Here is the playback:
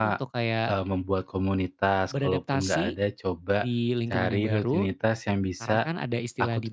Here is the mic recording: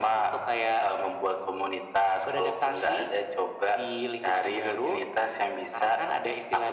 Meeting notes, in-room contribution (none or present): none